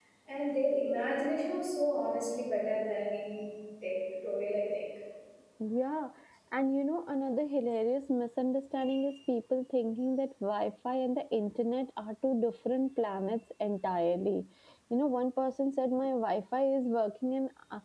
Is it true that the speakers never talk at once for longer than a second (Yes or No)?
Yes